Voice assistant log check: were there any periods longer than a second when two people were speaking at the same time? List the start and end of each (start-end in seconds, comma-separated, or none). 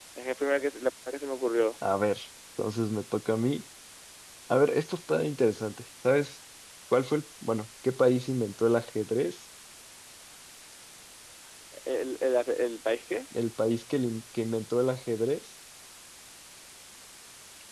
none